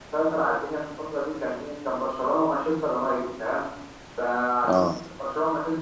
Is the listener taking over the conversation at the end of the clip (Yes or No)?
No